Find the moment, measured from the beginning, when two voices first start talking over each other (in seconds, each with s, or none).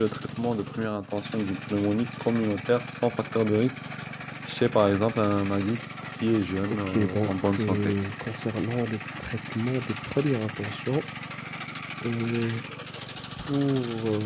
6.7 s